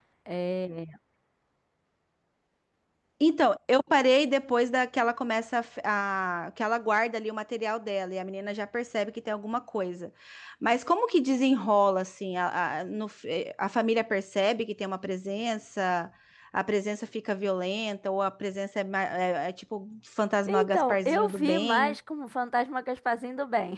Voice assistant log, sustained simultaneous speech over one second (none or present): present